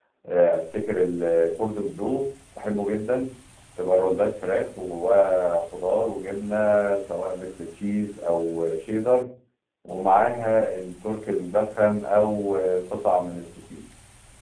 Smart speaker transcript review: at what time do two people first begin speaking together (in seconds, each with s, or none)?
none